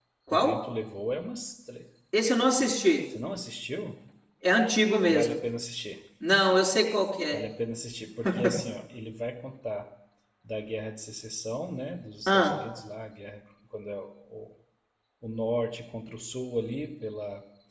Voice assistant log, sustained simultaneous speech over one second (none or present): none